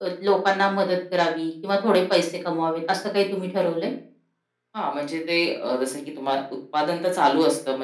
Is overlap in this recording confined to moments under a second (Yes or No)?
Yes